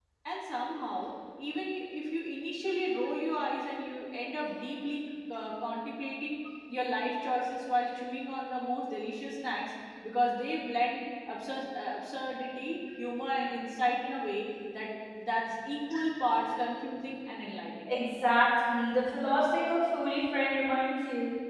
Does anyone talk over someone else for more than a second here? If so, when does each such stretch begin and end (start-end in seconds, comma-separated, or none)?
none